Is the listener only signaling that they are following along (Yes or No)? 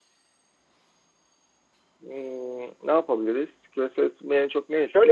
No